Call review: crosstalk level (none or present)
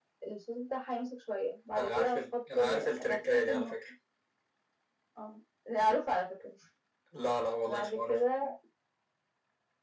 present